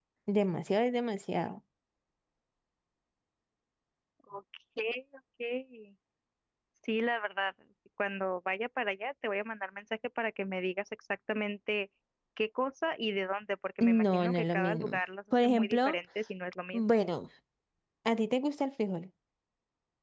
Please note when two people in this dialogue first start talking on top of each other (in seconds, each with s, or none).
13.8 s